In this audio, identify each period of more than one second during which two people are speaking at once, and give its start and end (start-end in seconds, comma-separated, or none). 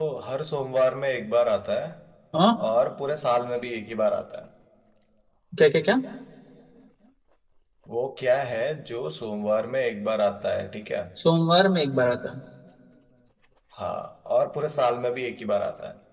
none